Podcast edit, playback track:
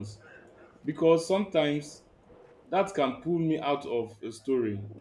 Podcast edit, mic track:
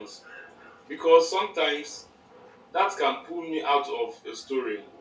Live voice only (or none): none